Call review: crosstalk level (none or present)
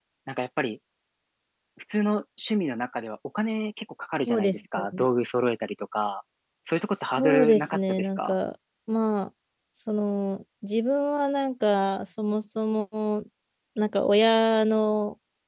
present